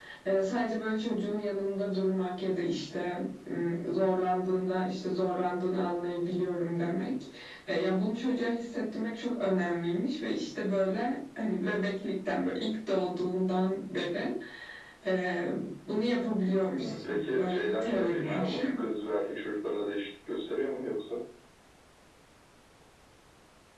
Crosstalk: present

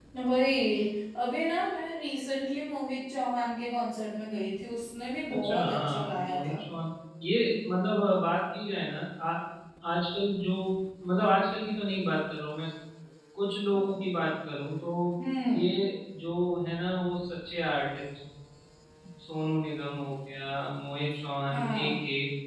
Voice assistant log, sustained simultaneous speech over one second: present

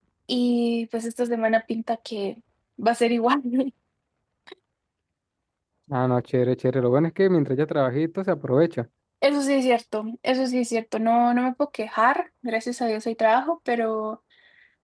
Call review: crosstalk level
none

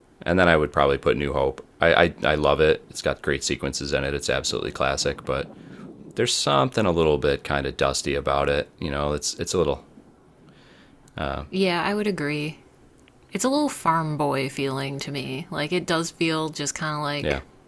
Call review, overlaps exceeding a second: none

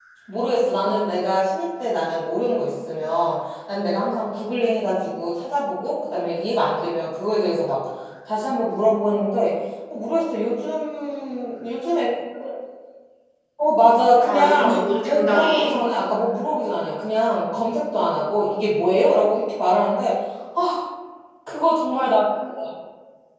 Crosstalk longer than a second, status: present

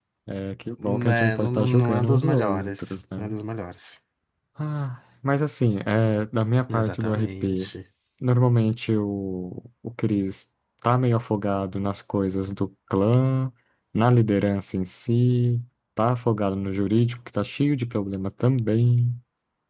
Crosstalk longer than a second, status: present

